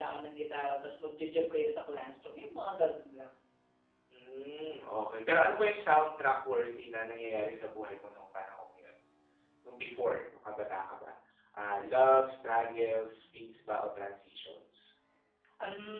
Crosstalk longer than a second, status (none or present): none